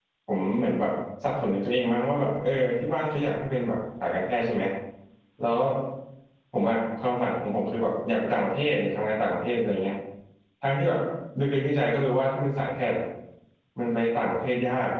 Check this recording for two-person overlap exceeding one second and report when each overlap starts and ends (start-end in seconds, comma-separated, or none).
none